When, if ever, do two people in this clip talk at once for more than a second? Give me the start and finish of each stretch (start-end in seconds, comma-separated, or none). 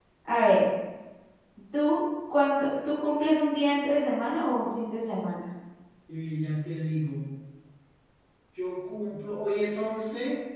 none